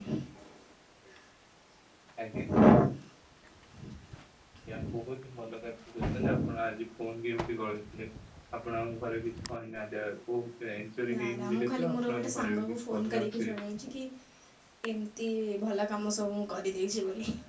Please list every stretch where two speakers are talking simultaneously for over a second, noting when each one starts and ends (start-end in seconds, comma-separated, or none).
11.1-13.6